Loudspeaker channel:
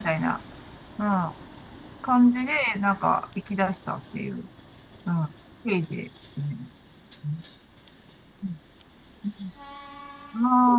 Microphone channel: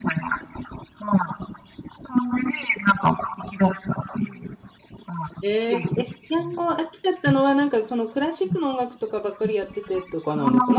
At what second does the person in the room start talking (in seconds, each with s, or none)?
5.4 s